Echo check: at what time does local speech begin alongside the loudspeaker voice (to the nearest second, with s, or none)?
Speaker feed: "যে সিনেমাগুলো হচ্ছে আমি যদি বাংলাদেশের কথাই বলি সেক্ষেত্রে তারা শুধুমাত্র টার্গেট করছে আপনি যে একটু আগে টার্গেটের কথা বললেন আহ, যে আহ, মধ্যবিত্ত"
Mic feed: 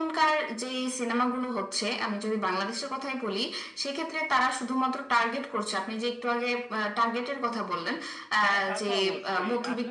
8 s